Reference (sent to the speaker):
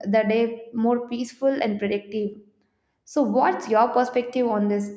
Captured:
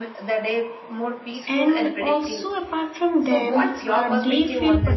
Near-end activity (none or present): present